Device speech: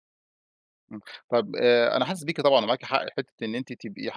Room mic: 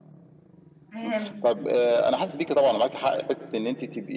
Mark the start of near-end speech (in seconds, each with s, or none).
0.9 s